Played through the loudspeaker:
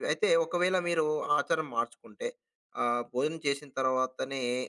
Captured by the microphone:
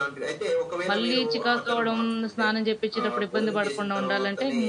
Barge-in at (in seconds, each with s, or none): 0.9 s